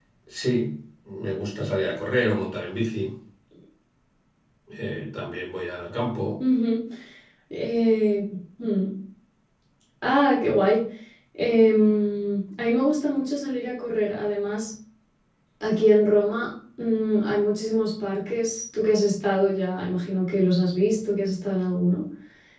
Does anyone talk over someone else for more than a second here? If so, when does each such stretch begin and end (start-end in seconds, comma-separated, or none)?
none